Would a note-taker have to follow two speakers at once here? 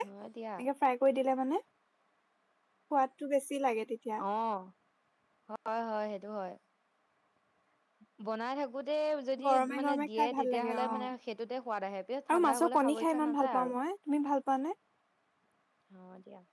Yes, from 9.5 s

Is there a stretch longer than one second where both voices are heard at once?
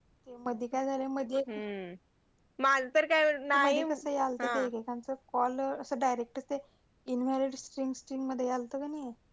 No

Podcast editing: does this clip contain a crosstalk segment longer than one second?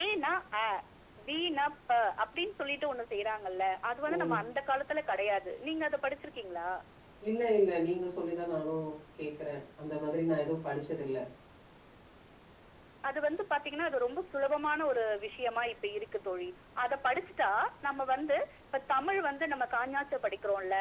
No

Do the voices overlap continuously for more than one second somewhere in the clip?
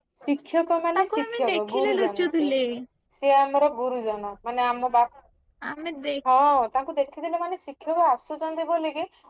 Yes, from 1.0 s

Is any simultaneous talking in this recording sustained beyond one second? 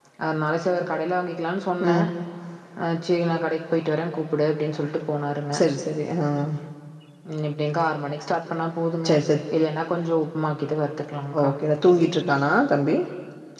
No

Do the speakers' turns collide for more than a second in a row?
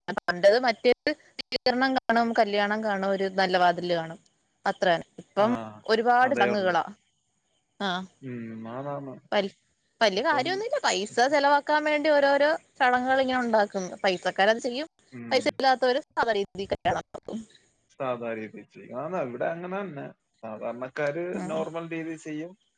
No

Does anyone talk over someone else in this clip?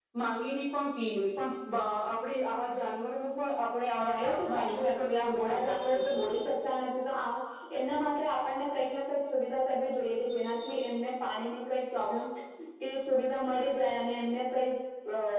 Yes, from 3.9 s

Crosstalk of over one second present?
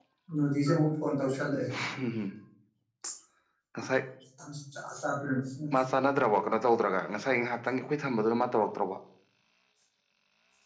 No

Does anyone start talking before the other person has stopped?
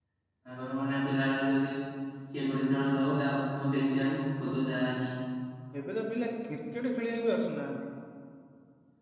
No

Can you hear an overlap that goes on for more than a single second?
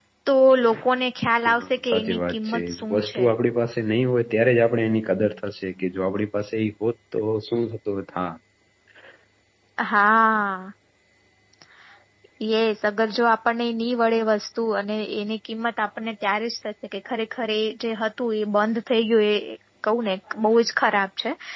Yes, from 1.4 s

